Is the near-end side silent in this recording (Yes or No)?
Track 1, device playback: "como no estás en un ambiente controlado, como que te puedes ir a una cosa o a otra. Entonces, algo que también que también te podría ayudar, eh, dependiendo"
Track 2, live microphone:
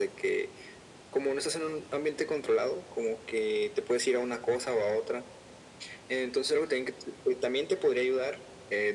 Yes